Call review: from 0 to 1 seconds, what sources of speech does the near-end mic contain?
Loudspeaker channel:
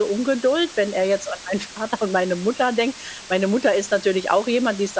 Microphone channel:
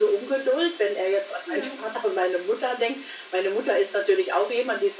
echo only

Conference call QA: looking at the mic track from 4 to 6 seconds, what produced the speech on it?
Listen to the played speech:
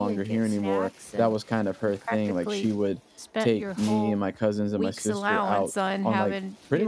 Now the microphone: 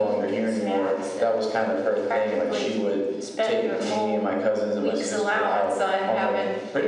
echo only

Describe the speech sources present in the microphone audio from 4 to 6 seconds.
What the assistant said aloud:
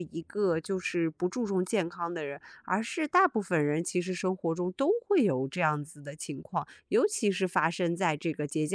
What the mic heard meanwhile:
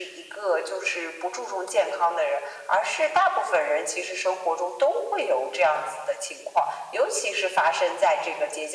echo only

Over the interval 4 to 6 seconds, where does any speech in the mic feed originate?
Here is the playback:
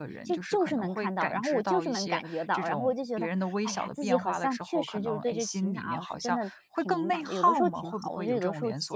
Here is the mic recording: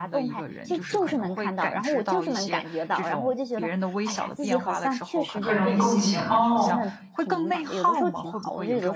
both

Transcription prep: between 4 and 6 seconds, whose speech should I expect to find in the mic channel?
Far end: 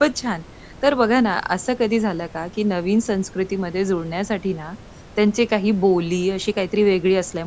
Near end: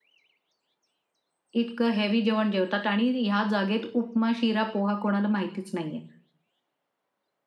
user only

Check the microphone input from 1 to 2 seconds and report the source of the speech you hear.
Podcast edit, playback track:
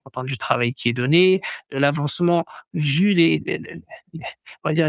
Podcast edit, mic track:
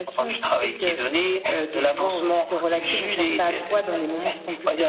both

